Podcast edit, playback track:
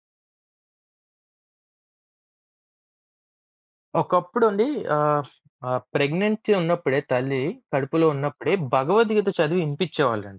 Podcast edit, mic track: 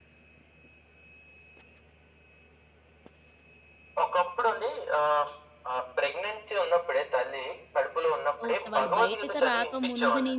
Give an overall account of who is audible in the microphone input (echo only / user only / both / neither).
both